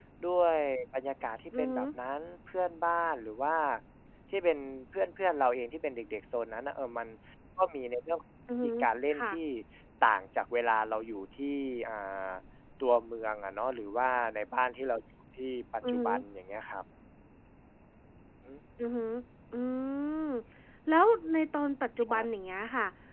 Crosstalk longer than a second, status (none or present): none